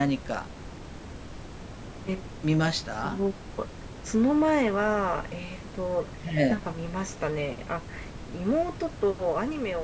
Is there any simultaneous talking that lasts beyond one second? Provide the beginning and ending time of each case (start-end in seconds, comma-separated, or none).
none